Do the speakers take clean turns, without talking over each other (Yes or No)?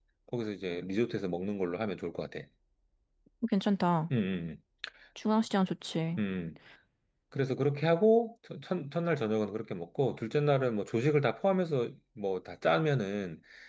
Yes